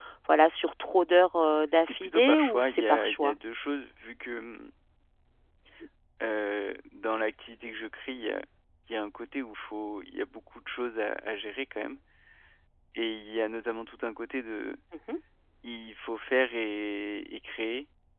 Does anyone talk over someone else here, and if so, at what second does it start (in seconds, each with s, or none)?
1.8 s